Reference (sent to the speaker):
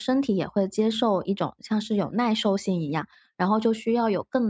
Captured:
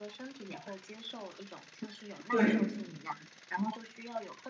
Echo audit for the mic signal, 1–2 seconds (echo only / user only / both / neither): echo only